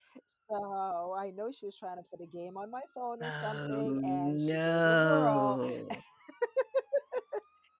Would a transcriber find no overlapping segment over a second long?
No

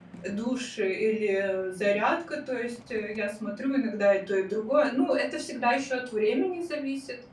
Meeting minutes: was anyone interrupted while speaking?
No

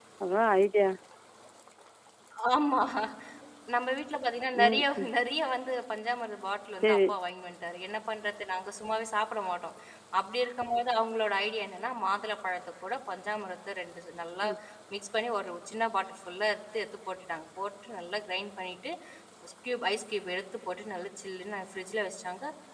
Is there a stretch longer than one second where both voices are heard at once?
No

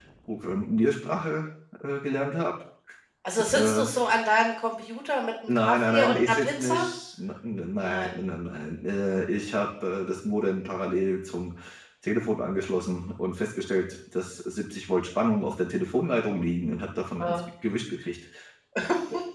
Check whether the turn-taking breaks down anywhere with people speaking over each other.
Yes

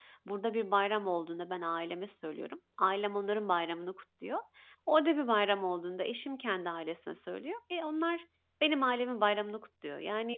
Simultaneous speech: No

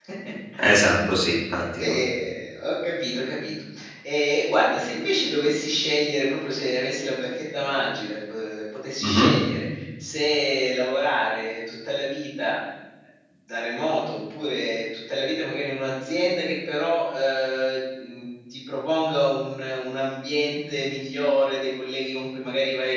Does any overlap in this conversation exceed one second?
No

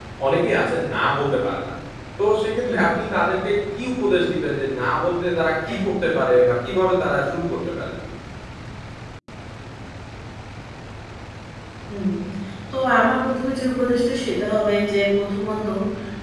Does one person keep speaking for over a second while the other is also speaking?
No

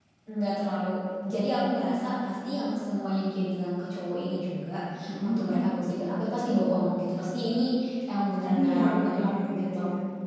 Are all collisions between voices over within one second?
No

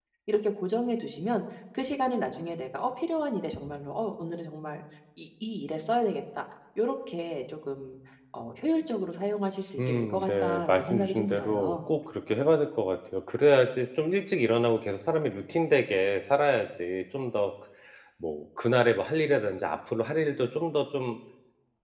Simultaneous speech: Yes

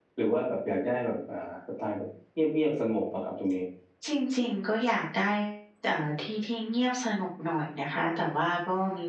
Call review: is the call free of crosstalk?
Yes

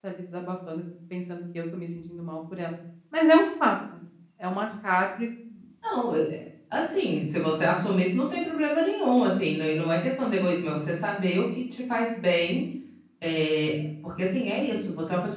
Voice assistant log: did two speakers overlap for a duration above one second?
No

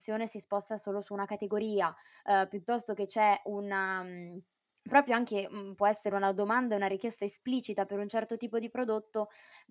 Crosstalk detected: No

